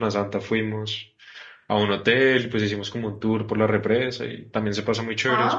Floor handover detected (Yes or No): Yes